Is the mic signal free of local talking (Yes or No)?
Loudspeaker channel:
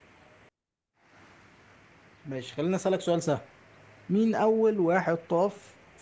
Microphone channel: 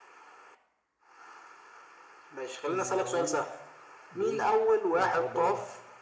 No